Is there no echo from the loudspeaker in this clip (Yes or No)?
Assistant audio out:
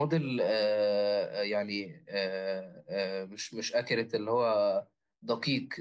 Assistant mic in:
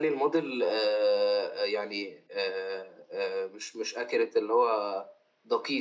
No